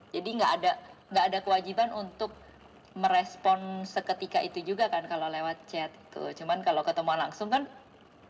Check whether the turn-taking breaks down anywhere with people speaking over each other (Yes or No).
No